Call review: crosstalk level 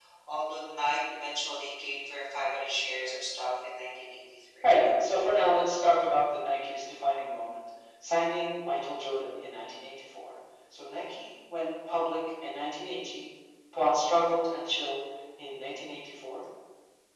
none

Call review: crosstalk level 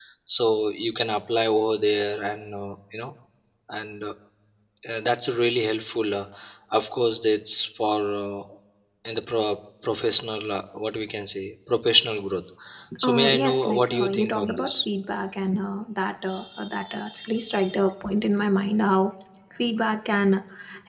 present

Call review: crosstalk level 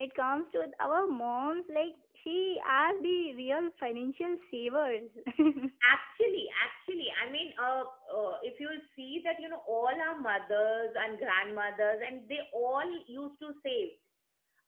none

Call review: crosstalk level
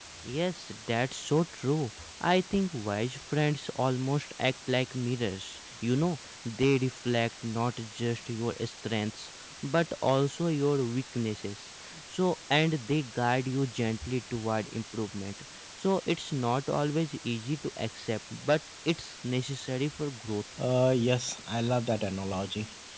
none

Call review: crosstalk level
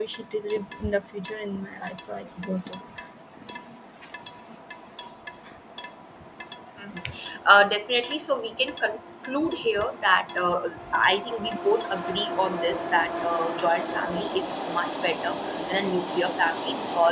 none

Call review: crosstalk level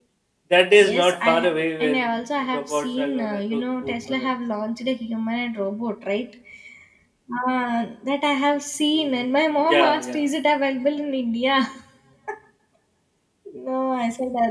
present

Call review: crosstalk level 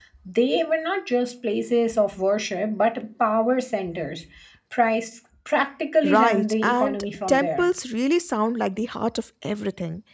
present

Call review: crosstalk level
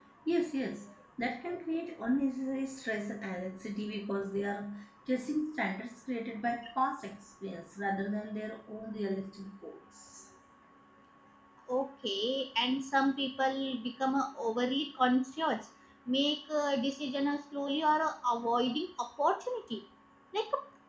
none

